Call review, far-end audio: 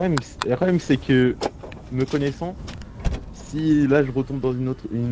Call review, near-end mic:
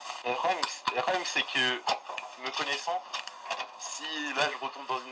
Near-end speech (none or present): none